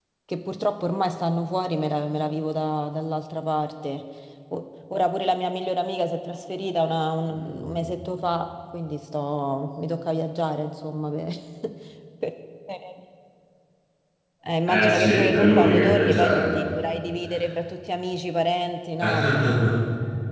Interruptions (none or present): present